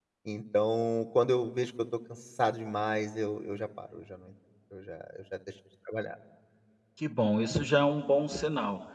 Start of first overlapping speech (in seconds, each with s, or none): none